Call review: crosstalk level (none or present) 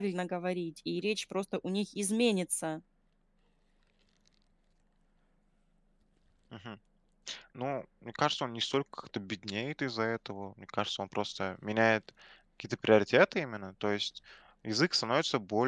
none